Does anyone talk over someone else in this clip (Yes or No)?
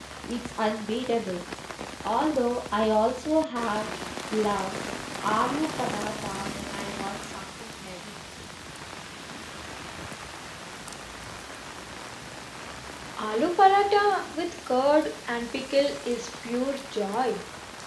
No